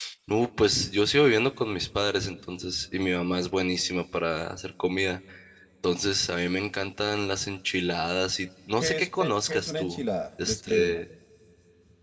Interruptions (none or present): present